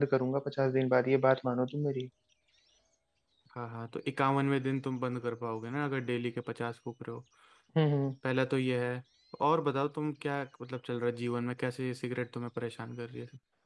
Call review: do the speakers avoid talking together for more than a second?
Yes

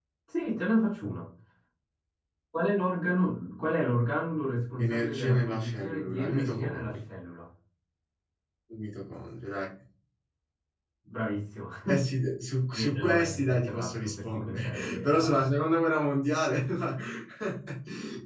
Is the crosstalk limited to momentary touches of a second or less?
No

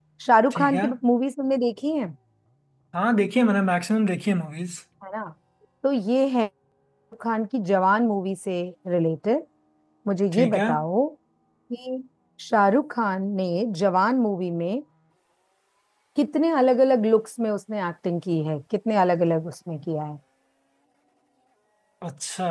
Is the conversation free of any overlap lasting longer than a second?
Yes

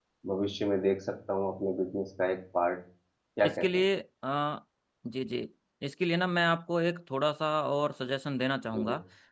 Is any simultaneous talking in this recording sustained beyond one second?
No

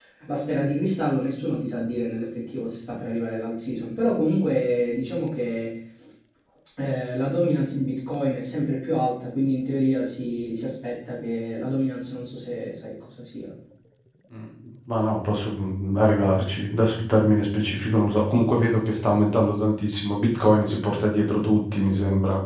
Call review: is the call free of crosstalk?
Yes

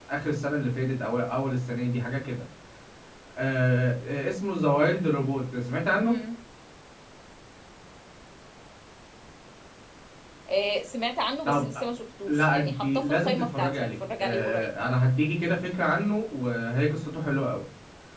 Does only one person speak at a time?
No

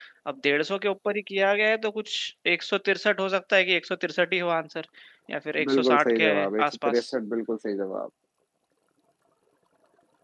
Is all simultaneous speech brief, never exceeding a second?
No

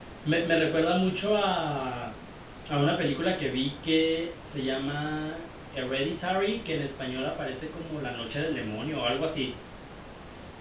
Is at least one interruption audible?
No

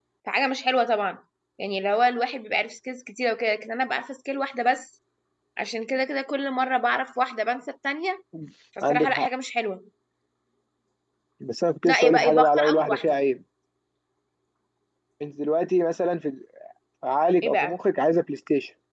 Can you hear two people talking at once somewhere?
Yes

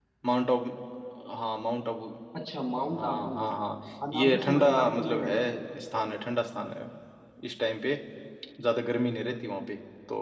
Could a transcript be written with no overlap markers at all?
No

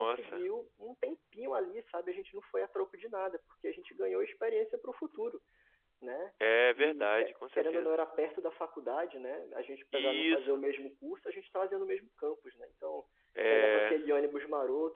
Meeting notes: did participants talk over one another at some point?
Yes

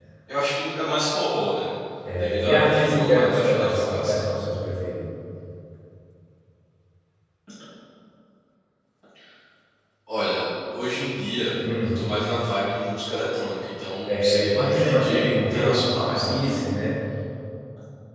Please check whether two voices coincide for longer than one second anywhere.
Yes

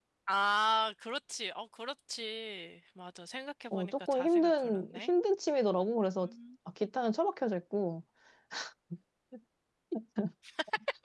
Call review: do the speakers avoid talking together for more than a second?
No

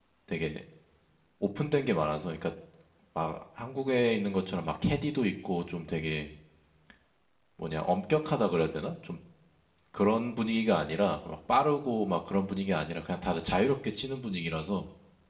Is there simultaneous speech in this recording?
No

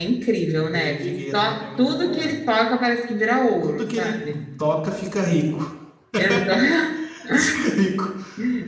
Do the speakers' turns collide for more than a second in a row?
Yes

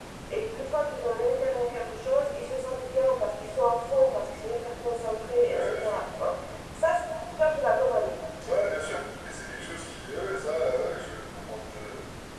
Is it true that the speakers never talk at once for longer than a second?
Yes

